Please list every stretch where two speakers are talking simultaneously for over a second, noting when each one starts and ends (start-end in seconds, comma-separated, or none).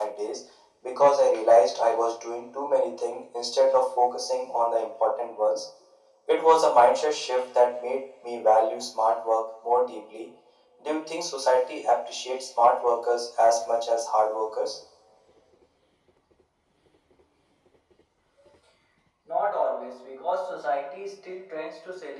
none